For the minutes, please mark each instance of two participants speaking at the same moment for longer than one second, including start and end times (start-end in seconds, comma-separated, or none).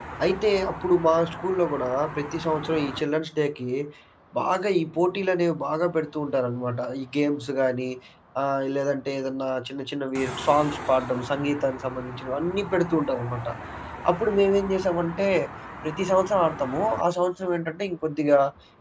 none